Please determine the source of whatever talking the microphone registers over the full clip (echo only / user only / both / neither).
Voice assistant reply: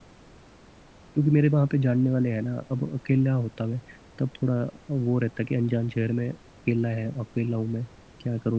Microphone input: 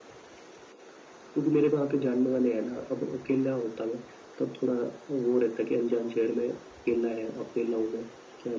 echo only